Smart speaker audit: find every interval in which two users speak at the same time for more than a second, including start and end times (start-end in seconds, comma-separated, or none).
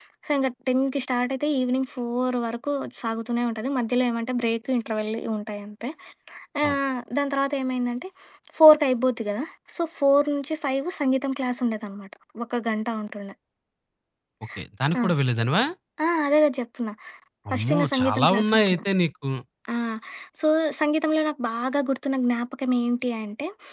17.5-18.8